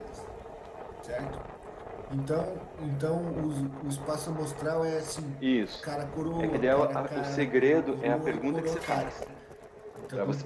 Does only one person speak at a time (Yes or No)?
No